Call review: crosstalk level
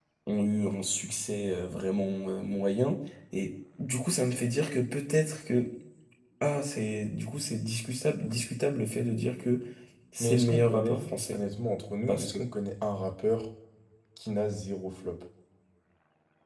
present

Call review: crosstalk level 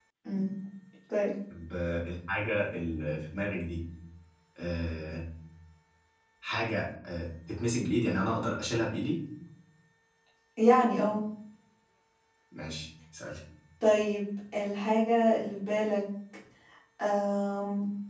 none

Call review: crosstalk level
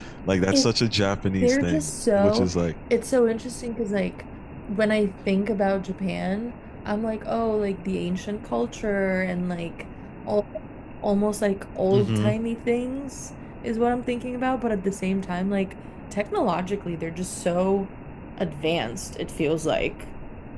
present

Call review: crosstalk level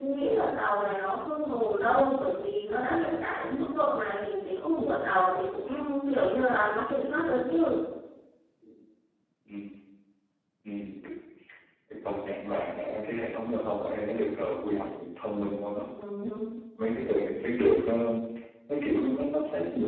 none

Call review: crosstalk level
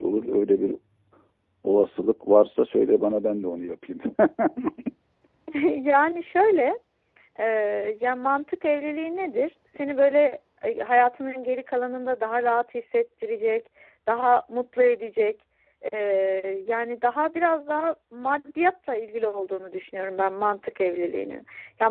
none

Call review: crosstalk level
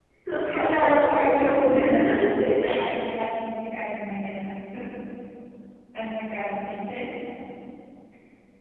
present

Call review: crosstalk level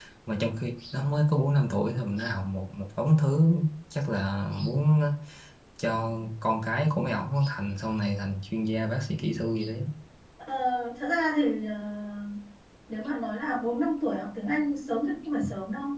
none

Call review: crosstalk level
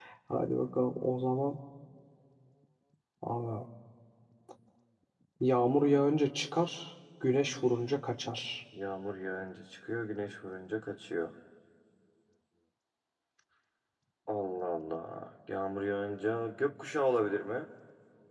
none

